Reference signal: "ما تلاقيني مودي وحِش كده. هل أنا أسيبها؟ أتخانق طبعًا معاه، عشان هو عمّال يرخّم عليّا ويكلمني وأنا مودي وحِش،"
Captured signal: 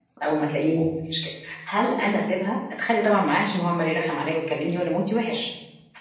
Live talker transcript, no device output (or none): none